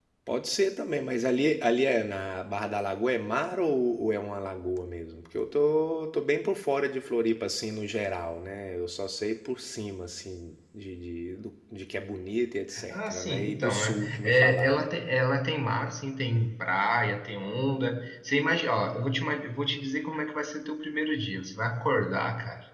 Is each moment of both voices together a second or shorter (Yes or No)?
No